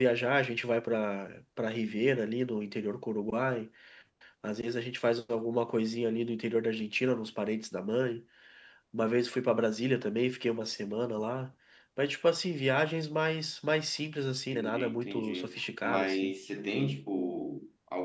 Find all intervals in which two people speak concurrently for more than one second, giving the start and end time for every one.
14.5-16.3

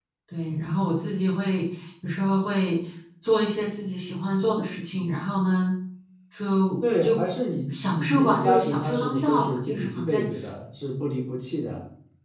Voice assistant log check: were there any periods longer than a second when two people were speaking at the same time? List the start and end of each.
8.0-10.2

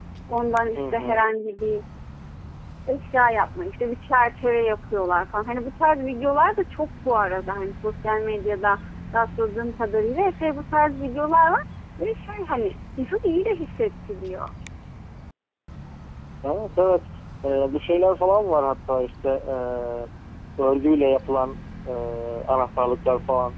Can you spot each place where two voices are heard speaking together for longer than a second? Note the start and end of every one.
none

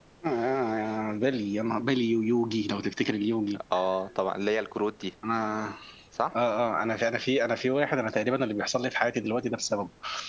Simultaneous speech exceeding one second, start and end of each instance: none

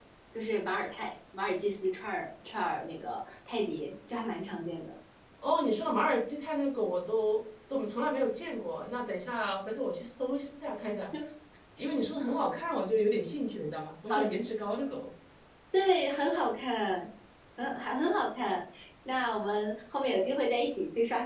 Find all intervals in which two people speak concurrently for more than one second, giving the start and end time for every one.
none

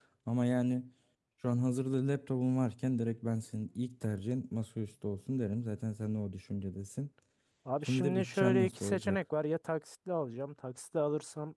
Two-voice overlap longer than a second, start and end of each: 7.9-9.2

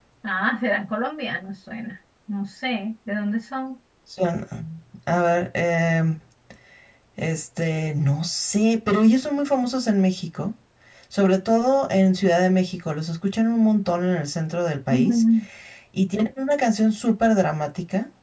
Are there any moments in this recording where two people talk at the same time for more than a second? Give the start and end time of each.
none

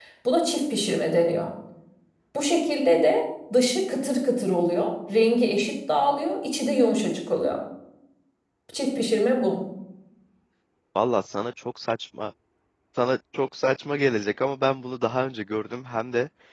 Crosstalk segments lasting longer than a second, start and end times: none

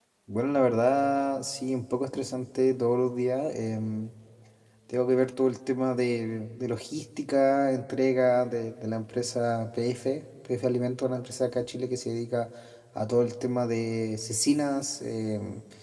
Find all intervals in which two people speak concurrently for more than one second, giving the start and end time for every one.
none

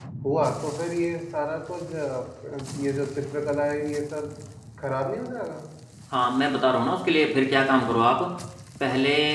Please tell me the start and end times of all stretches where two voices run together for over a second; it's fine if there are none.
none

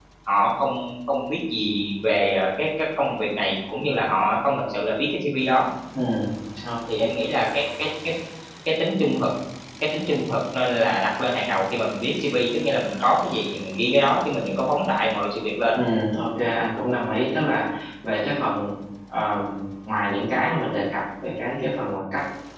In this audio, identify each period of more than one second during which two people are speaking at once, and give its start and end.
none

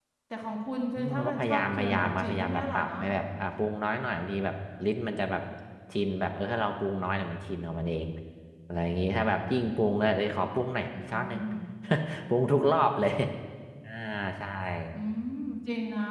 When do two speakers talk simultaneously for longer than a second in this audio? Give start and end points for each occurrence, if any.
0.9-2.9

